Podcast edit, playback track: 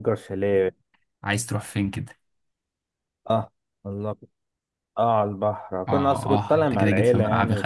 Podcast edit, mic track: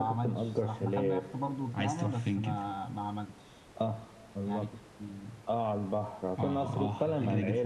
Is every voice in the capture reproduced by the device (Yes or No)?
No